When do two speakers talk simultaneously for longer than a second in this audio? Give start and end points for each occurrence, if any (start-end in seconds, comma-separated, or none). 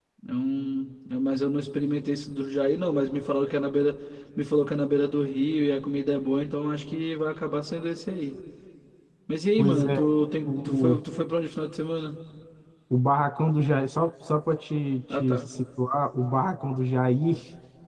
none